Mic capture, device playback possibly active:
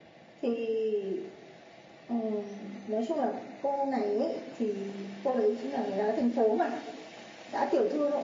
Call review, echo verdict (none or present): present